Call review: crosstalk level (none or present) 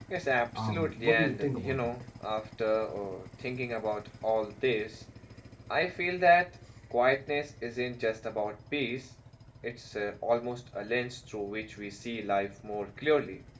present